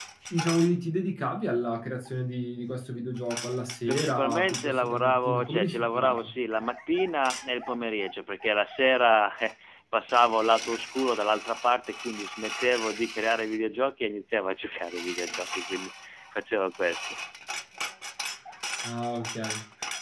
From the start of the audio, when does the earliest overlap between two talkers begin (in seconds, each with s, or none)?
3.9 s